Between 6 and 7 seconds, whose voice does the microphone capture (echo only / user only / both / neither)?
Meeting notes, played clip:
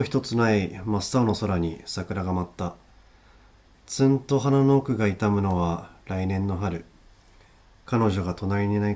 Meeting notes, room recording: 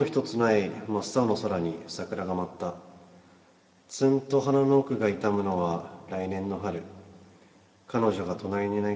echo only